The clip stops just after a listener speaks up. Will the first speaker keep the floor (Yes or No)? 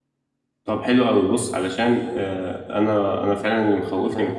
Yes